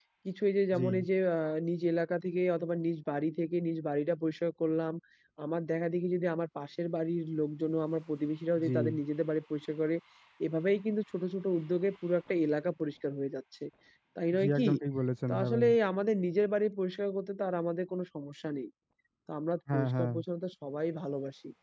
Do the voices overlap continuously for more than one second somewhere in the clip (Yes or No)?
No